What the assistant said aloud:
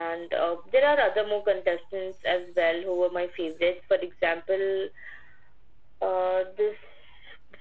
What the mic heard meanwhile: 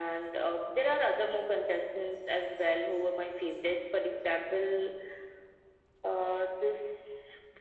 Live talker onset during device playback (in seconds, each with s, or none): none